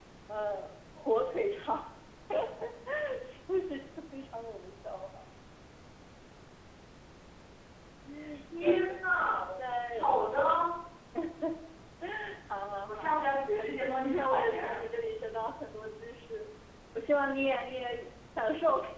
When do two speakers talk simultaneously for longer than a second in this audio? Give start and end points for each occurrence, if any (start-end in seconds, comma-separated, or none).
13.6-14.8